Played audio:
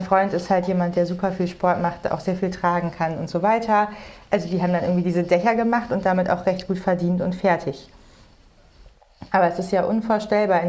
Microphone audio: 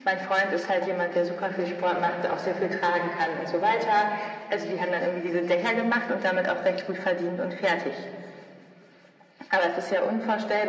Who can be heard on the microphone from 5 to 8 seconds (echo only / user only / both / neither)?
echo only